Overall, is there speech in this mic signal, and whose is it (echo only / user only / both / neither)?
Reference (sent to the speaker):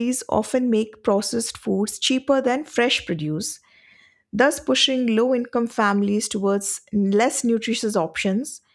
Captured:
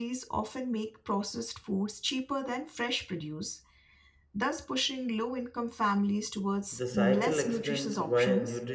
both